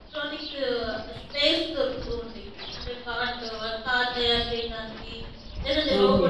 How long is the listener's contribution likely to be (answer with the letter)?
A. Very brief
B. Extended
A